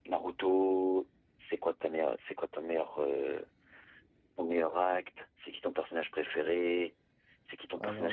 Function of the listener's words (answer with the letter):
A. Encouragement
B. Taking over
A